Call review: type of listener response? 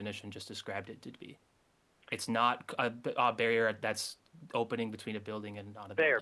taking over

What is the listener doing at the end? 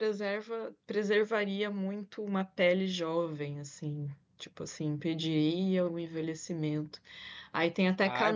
taking over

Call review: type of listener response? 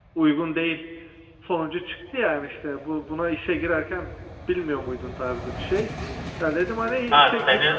taking over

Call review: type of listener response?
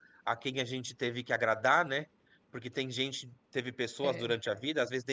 listening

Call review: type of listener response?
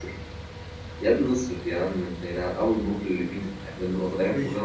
listening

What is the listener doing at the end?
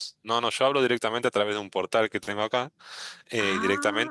listening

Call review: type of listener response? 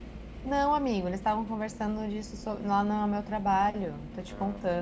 taking over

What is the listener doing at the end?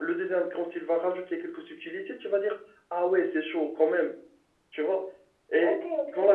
taking over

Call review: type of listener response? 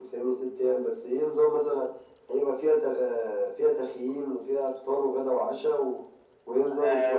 taking over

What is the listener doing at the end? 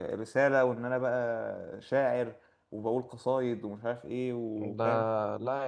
taking over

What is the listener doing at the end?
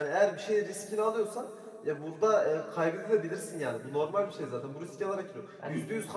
listening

